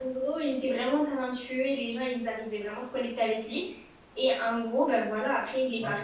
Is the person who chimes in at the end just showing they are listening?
No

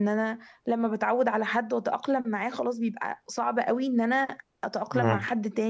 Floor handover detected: No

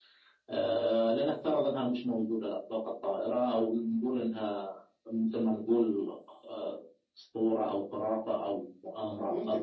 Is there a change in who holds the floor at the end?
Yes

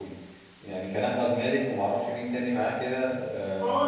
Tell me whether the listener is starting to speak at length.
Yes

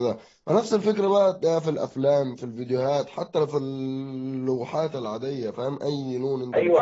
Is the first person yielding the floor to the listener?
Yes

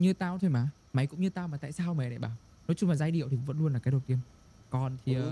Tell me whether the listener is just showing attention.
No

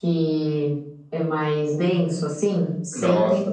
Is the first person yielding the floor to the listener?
Yes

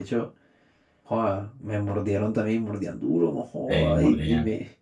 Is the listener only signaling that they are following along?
Yes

